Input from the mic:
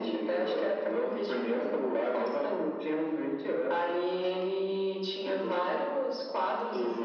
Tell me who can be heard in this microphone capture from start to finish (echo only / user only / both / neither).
echo only